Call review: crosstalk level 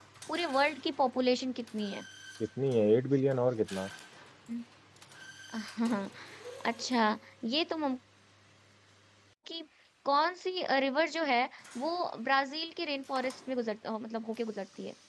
none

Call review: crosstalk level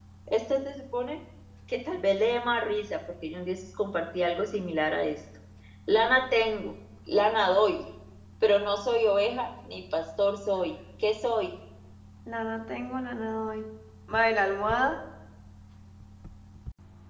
none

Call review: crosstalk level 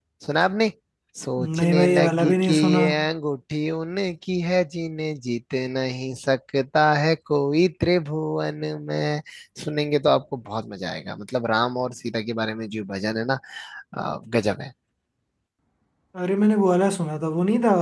present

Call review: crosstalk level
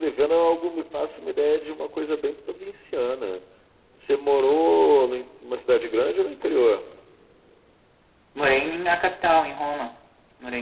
none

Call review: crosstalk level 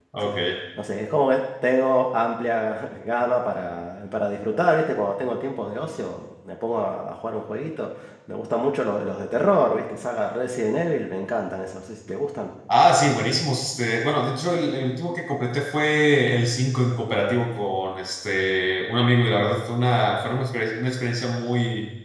none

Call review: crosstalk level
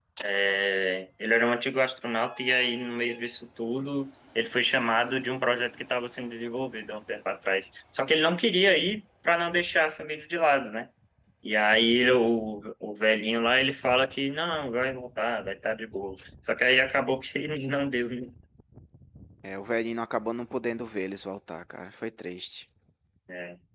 none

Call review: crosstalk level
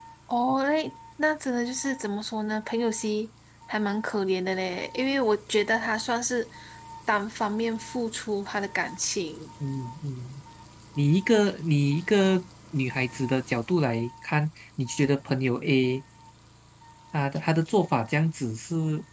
none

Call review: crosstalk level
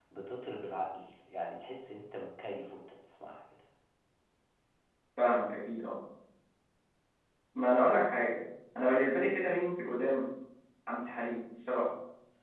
none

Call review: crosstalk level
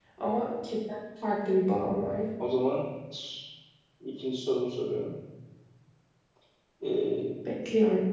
none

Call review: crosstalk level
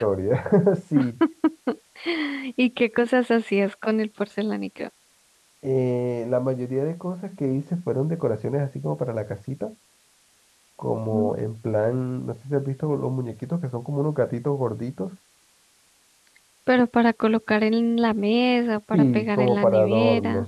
present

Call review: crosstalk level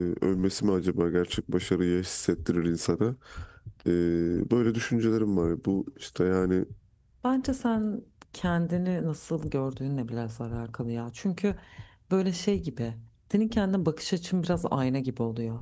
none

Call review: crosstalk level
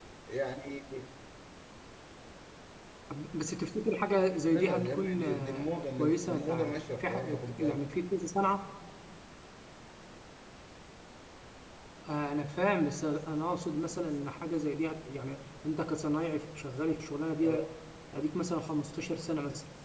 present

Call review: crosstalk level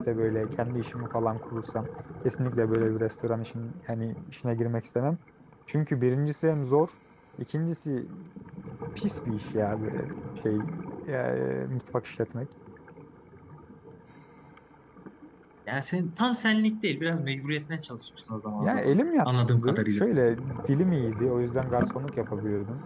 present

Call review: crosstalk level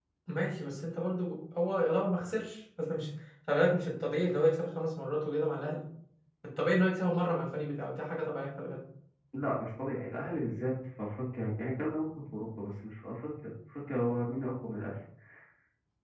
none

